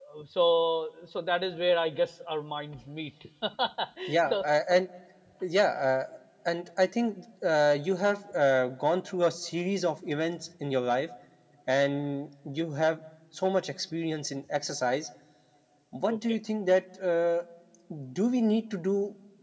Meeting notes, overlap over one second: none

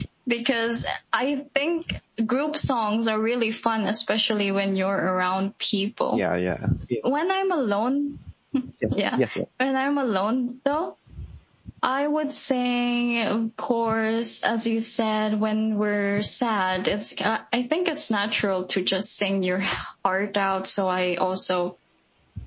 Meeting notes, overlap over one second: none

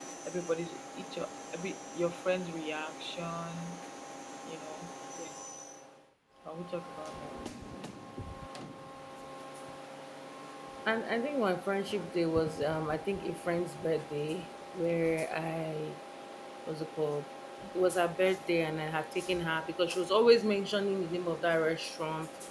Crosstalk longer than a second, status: none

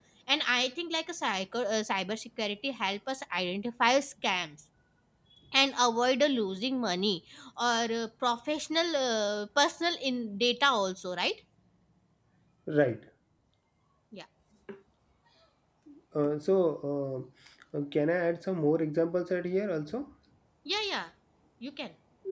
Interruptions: none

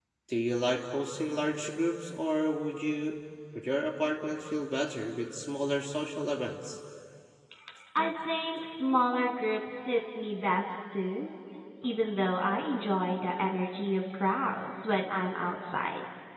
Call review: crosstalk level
none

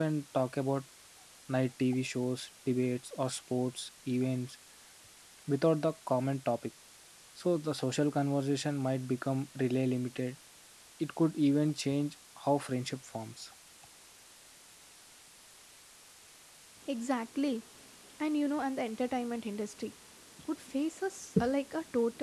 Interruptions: none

